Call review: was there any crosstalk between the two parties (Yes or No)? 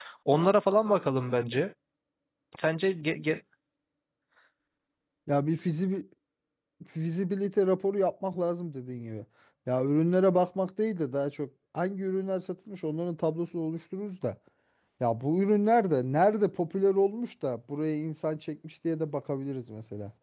No